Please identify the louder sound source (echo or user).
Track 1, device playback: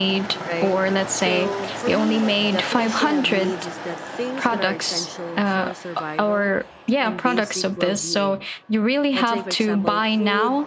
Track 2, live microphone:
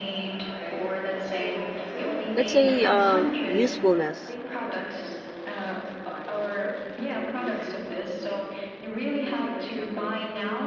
user